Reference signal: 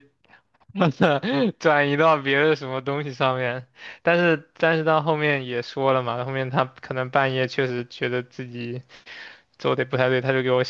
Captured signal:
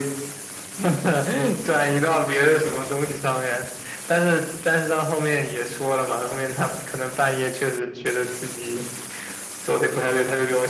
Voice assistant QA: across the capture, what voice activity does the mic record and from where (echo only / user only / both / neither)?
echo only